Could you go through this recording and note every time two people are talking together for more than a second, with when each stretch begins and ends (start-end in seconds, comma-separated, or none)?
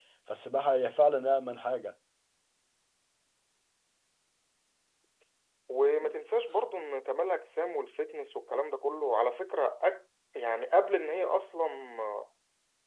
none